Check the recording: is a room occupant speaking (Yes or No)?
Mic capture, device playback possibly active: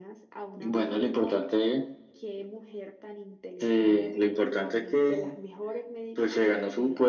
No